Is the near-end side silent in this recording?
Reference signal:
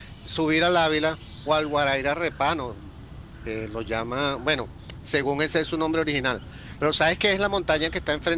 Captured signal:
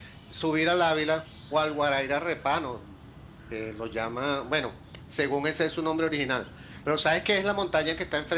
Yes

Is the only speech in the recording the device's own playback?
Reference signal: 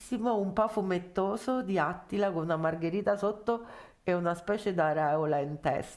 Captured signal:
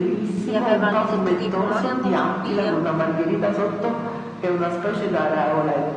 No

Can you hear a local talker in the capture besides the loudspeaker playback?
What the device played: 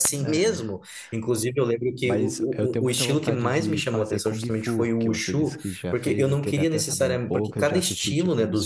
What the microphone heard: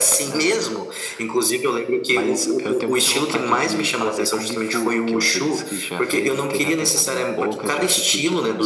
No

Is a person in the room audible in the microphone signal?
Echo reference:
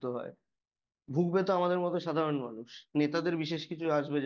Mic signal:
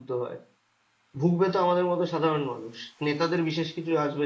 No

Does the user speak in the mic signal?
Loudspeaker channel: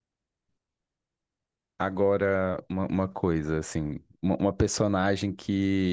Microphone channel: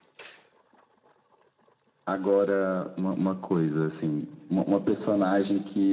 No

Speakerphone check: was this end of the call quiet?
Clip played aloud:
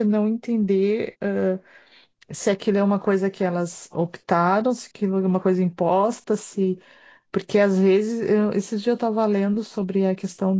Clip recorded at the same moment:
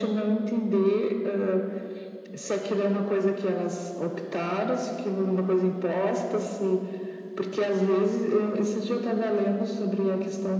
Yes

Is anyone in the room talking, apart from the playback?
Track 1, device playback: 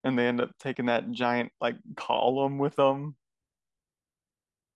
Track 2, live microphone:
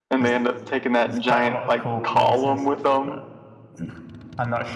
Yes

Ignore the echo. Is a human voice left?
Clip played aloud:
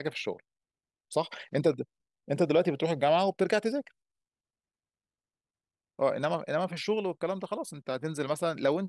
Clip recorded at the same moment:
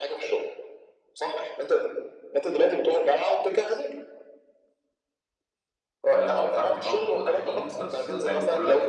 Yes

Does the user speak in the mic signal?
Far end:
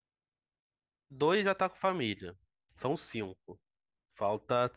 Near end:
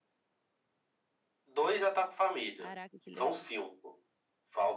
Yes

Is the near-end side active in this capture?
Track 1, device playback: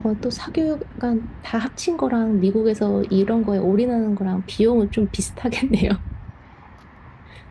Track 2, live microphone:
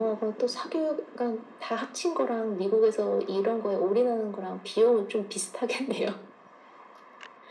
No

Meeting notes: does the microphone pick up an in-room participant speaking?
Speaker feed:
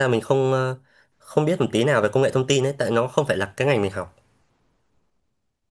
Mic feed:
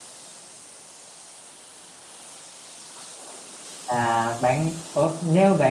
Yes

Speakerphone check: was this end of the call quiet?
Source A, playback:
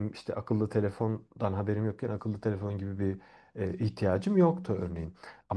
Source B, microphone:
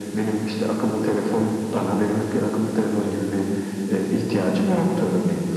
Yes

